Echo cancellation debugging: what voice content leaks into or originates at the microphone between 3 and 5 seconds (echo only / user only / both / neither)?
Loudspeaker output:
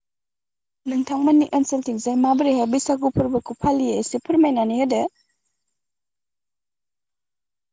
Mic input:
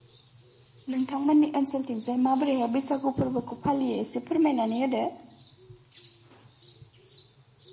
echo only